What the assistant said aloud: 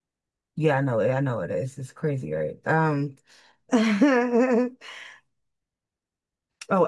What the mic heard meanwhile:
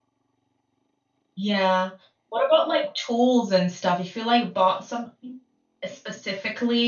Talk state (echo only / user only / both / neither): user only